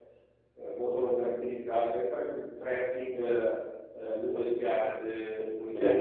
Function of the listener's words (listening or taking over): listening